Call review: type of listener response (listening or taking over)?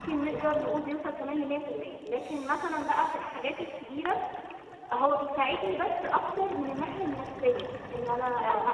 listening